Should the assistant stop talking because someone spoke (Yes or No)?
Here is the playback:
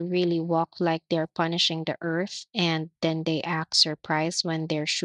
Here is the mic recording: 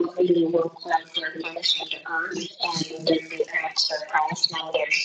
No